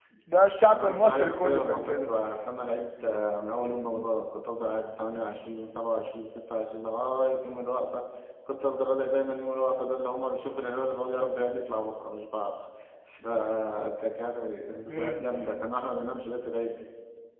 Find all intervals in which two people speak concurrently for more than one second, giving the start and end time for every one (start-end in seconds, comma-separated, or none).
0.7-2.1